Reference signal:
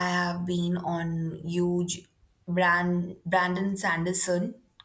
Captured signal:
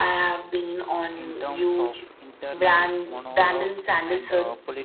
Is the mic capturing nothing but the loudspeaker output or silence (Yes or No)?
No